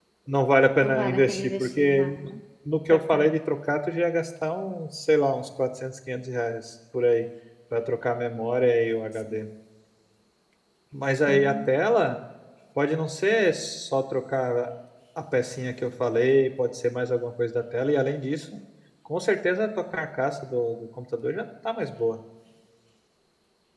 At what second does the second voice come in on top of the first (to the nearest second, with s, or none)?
1 s